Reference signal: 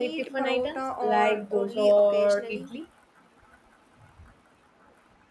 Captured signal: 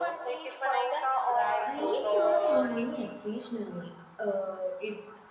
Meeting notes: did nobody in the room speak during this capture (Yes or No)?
No